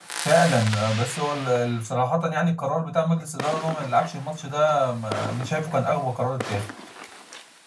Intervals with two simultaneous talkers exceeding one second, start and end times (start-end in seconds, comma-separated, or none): none